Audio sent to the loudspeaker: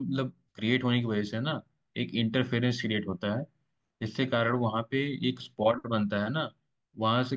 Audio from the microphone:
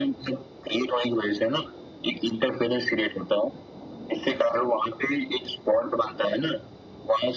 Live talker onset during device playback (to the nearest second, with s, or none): none